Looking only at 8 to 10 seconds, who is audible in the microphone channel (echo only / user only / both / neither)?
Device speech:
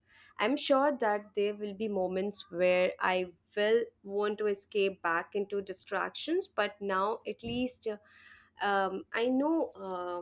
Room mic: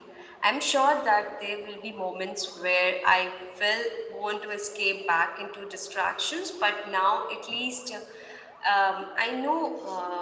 echo only